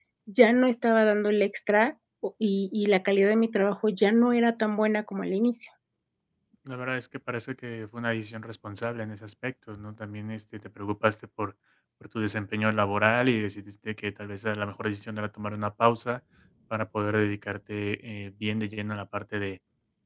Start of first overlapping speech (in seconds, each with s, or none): none